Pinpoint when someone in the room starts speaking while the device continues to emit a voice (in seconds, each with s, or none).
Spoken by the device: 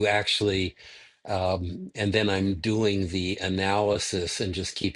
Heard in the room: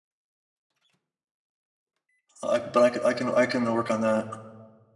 2.4 s